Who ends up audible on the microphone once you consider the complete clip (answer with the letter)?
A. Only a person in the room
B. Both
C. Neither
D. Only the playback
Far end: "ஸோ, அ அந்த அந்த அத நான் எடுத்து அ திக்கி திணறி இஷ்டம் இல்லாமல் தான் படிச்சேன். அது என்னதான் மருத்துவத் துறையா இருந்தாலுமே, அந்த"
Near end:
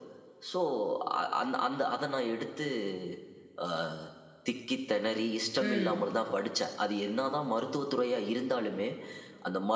B